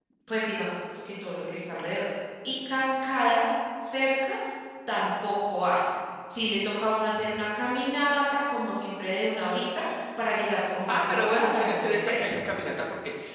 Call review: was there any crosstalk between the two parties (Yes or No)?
Yes